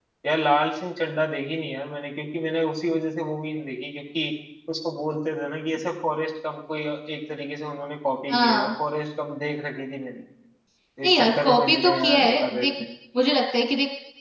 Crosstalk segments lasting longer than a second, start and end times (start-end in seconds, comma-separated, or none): 11.0-12.7